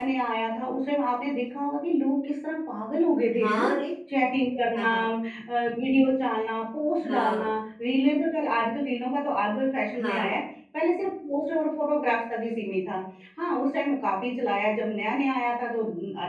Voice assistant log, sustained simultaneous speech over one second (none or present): none